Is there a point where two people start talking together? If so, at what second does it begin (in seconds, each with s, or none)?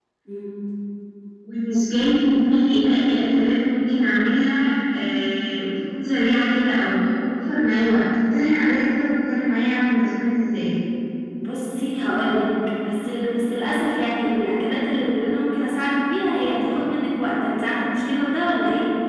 none